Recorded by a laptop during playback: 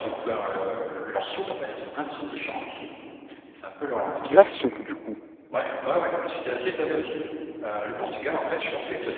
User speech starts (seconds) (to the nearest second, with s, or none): 4 s